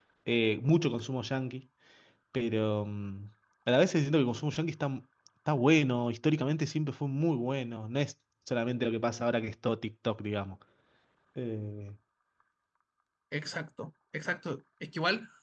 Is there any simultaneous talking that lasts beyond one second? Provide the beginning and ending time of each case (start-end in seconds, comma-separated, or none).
none